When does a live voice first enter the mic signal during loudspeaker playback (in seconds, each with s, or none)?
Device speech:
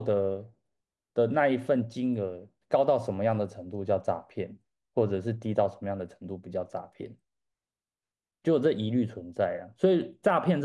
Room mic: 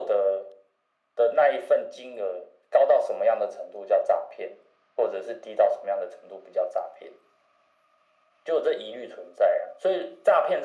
none